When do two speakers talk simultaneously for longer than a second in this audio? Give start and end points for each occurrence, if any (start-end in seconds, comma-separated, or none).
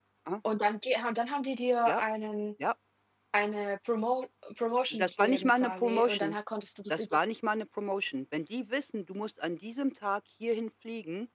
4.9-6.3